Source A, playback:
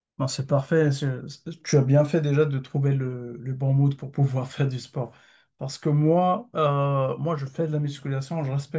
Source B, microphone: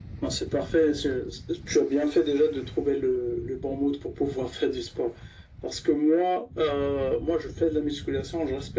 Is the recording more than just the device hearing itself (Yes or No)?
No